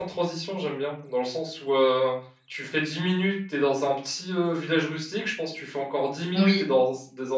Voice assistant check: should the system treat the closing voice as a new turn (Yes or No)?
No